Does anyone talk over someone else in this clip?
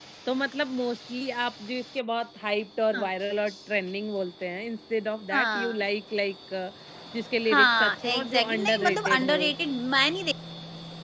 Yes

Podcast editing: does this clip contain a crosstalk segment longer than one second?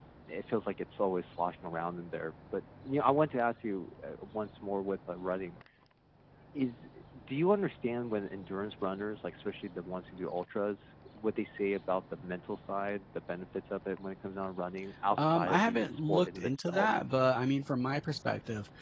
Yes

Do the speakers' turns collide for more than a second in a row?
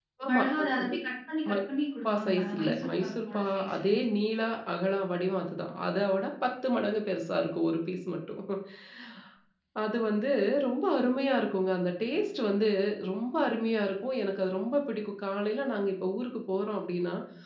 Yes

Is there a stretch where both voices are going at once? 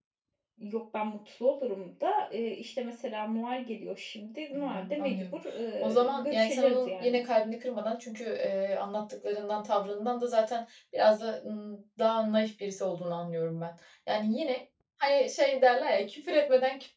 Yes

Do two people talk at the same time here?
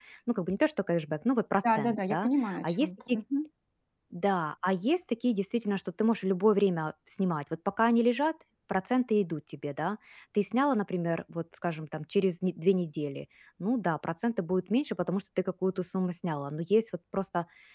Yes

